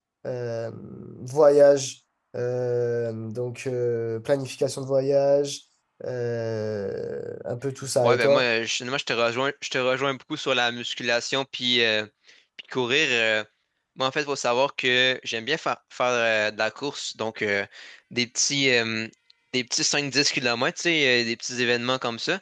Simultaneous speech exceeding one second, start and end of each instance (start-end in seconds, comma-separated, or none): none